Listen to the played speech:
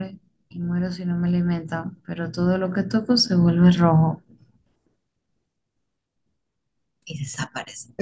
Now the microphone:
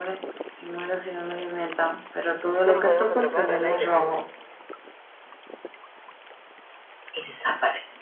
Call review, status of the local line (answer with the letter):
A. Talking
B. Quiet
A